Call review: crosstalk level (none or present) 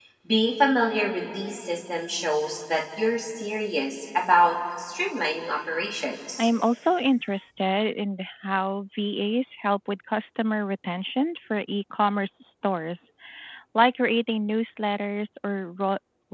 none